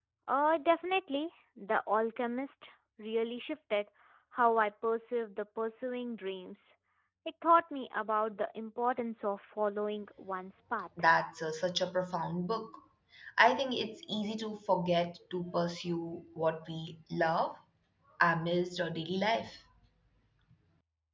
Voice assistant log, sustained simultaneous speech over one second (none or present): none